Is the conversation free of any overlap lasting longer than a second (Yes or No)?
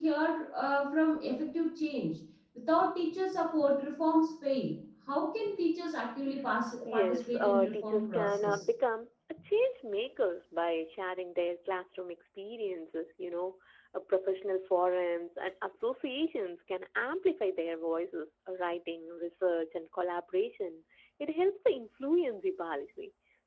No